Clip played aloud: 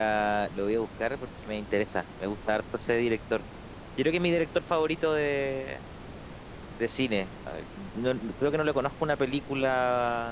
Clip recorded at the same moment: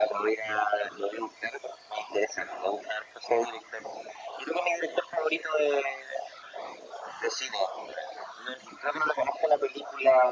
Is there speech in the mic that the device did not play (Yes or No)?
No